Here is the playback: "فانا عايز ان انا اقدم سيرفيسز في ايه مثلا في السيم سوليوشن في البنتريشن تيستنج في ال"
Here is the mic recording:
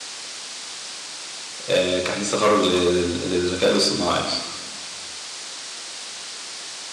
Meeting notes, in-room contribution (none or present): present